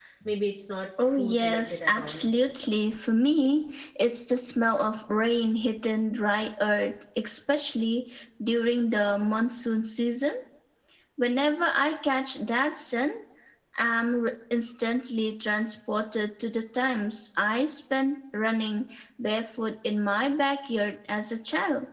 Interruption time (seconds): 1 s

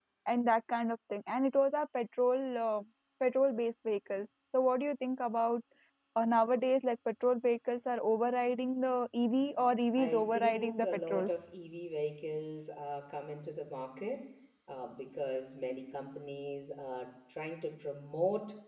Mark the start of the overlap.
10 s

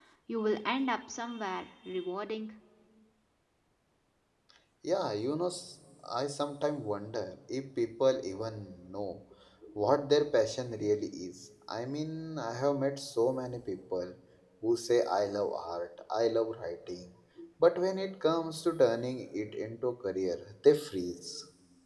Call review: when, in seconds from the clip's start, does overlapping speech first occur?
none

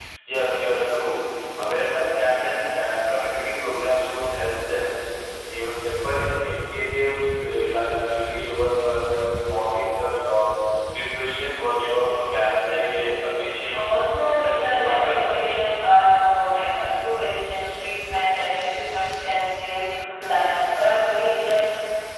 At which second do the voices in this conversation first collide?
14 s

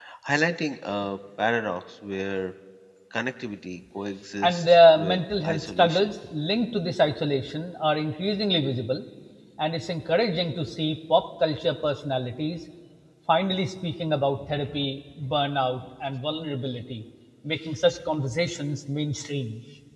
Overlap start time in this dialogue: 4 s

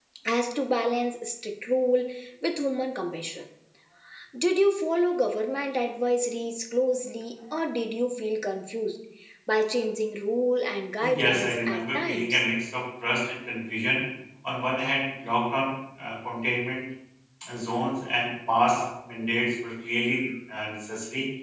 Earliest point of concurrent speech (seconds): 11 s

